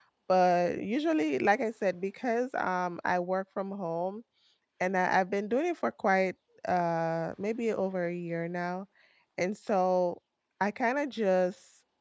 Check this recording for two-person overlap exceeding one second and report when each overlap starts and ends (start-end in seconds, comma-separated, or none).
none